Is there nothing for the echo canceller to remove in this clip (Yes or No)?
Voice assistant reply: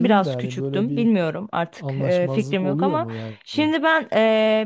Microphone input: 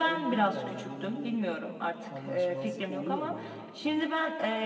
No